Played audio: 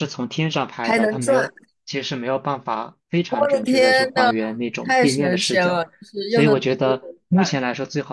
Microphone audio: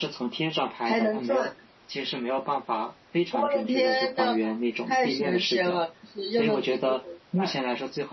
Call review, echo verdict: present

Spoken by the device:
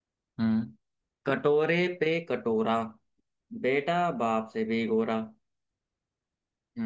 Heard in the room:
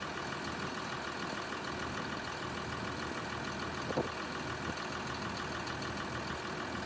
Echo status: none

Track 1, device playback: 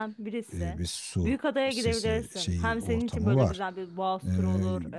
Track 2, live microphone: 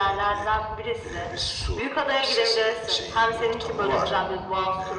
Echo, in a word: present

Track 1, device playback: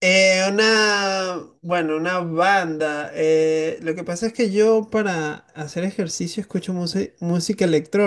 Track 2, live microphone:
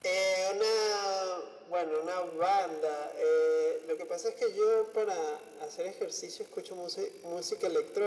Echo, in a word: present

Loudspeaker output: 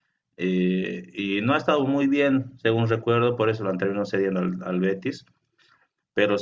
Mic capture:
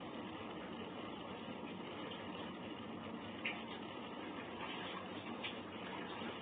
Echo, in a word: none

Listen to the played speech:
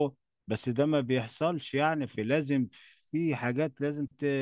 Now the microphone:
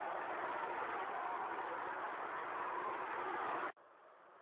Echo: none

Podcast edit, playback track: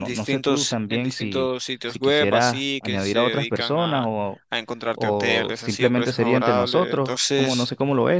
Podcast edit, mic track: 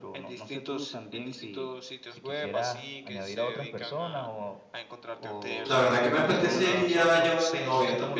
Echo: present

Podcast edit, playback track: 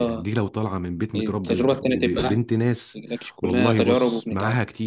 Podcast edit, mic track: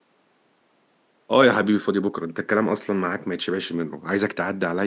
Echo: none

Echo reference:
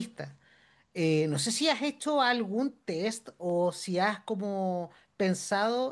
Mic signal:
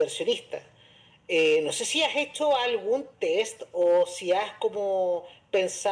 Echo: present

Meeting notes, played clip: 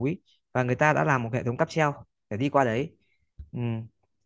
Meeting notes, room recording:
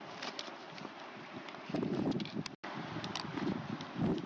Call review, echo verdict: none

